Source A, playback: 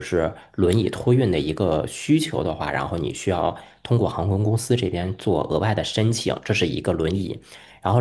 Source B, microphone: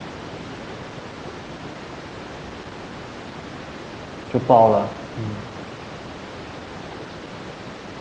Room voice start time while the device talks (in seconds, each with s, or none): 4.3 s